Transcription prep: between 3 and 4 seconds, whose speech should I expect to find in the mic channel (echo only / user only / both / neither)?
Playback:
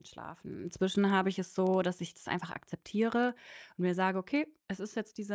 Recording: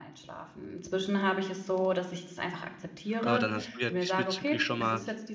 both